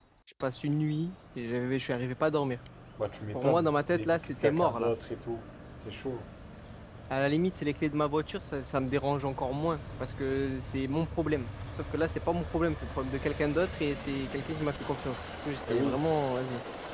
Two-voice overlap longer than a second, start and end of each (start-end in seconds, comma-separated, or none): 3.3-4.9